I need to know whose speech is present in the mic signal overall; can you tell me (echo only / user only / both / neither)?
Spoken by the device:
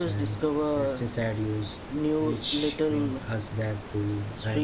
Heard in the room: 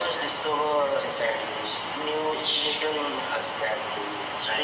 echo only